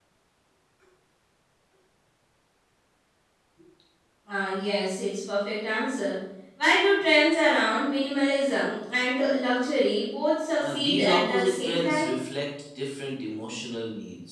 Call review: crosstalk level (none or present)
present